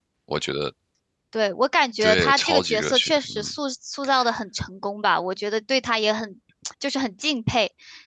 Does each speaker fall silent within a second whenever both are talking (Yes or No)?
No